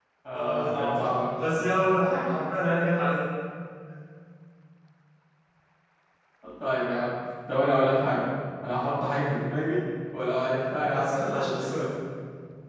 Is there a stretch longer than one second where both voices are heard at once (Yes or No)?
Yes